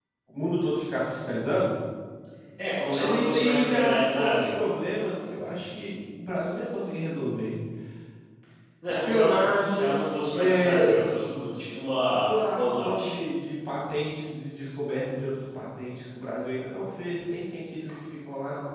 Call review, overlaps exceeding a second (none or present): present